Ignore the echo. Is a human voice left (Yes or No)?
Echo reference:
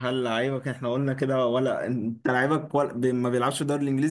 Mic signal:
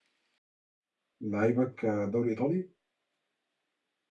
Yes